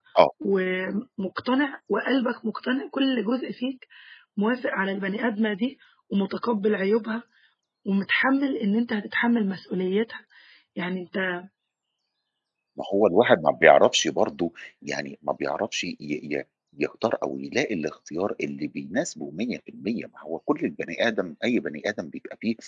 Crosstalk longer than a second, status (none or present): none